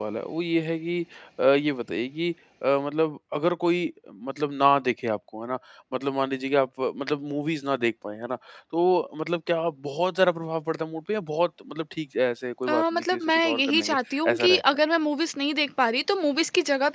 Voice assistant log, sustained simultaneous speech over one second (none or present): present